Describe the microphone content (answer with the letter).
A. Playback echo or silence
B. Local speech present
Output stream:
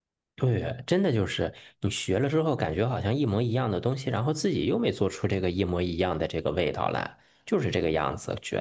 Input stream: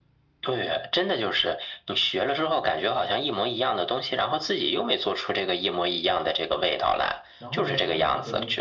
B